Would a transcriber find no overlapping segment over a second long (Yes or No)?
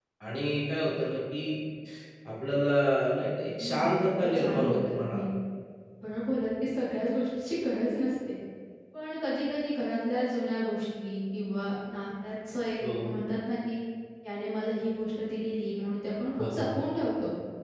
No